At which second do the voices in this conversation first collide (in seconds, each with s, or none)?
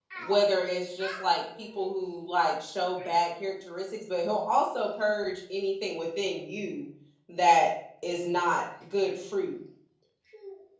none